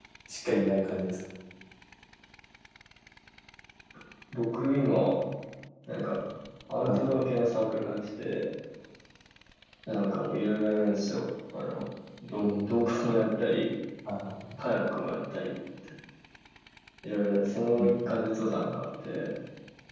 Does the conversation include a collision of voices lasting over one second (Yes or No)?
No